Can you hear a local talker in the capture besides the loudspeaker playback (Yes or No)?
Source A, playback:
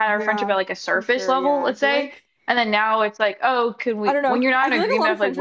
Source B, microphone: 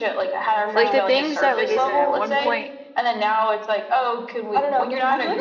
Yes